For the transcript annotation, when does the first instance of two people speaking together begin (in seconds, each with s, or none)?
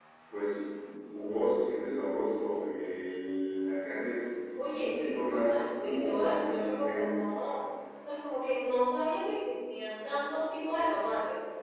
4.5 s